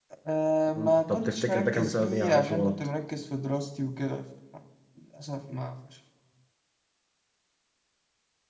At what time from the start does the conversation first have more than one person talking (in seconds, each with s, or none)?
0.7 s